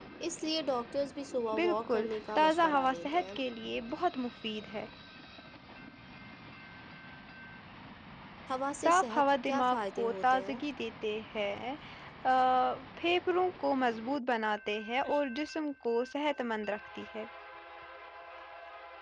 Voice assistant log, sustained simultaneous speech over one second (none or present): present